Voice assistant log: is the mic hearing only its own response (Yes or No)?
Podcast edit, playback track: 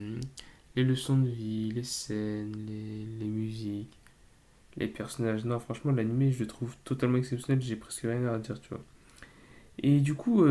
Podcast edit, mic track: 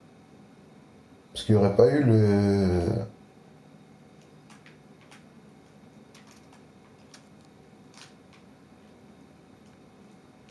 No